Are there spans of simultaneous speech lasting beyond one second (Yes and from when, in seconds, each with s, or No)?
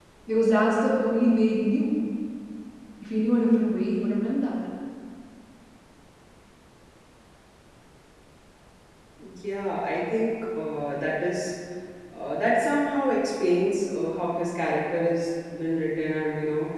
No